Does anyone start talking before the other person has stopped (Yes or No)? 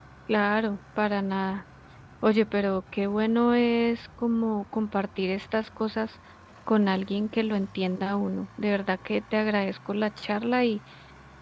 No